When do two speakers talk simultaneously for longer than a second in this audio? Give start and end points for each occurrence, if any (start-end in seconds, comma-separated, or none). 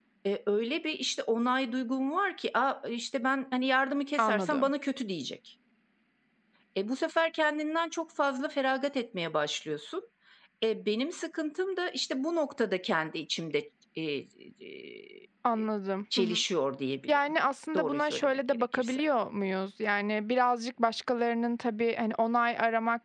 17.8-19.0